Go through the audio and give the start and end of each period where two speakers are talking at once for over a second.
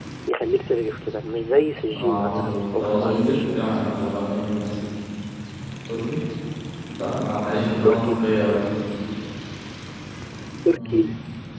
1.9-3.6

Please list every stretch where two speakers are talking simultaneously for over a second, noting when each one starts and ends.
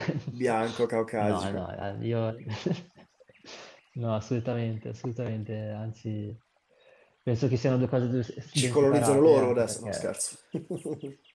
8.6-10.1

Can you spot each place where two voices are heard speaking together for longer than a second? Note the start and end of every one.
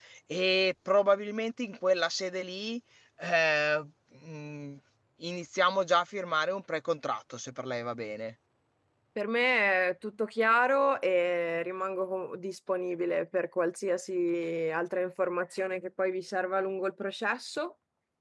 none

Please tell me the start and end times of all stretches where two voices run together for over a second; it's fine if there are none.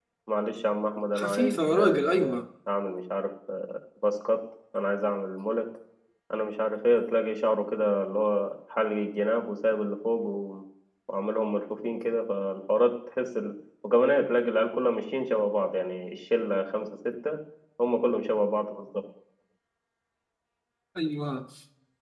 1.1-2.4

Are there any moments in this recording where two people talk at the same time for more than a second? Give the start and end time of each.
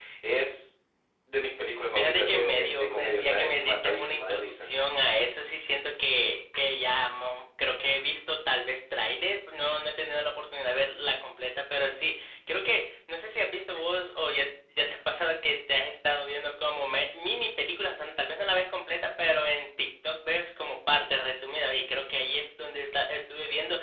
2.0-4.7

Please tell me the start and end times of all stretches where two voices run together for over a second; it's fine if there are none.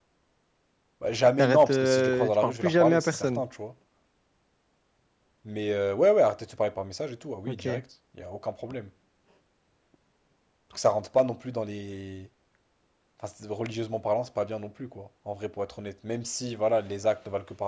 1.4-3.4

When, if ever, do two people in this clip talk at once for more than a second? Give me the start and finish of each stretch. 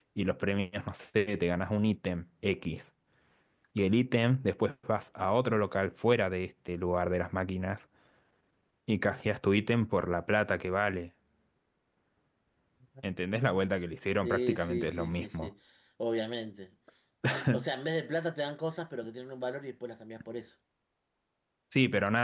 14.2-15.5

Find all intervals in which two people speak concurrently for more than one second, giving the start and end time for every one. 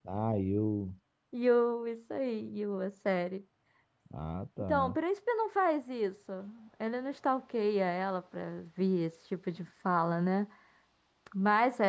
none

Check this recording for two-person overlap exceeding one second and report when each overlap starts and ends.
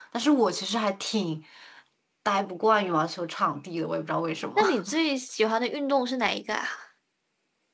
none

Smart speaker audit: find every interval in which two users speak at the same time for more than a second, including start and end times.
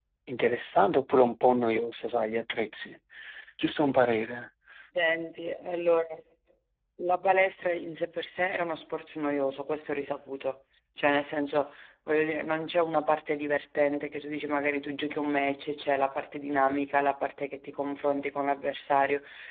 none

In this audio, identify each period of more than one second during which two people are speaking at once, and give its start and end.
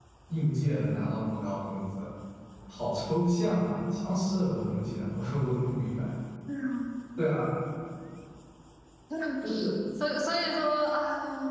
none

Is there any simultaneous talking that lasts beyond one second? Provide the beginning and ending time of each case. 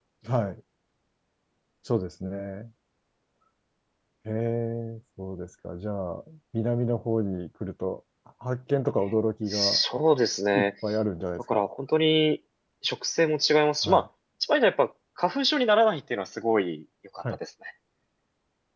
none

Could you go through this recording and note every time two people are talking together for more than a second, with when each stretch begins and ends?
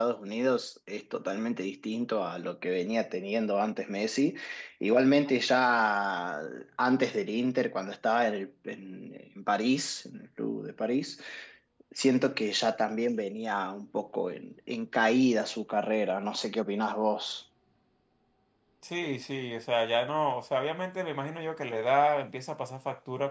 none

